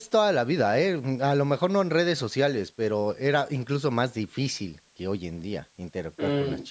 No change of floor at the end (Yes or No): No